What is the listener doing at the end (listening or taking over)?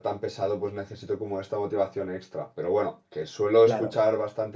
listening